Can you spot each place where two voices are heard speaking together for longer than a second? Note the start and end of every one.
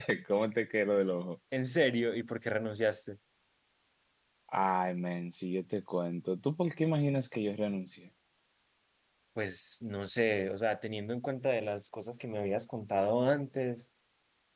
none

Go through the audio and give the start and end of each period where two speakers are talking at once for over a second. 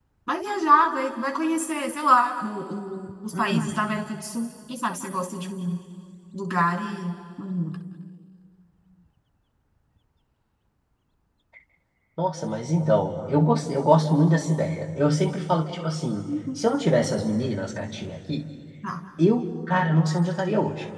none

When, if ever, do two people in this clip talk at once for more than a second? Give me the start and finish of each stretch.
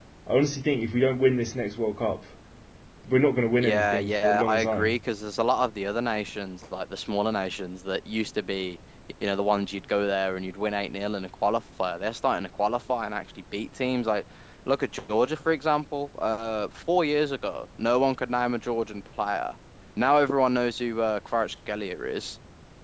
3.6-5.0

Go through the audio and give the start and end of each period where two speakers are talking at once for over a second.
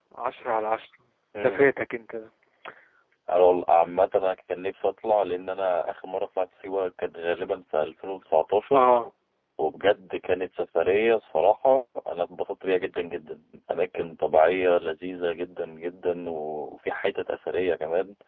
none

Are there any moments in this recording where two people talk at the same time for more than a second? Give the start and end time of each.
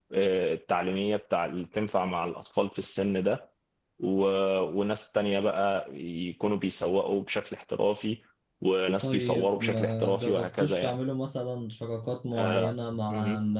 9.0-10.9

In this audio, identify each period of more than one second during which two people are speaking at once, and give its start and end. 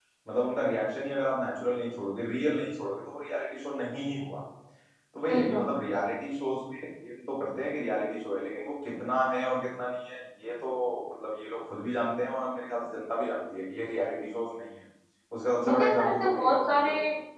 15.6-16.9

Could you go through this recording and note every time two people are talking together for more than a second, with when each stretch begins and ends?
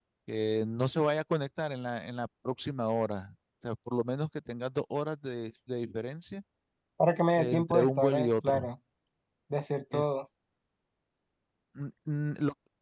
7.4-8.7

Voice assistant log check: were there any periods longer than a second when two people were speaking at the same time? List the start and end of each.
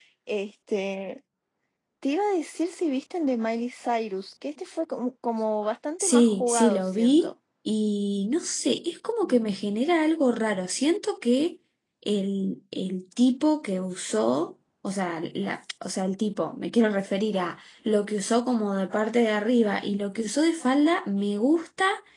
6.0-7.3

